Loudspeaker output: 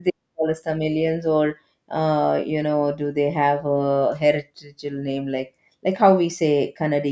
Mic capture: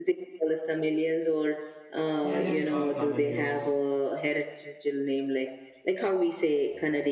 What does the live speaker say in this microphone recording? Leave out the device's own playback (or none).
they just called tamilians